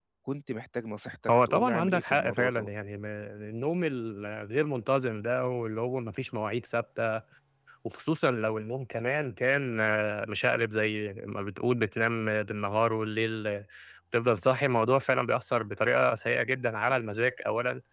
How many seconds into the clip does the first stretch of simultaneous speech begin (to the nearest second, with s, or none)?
1 s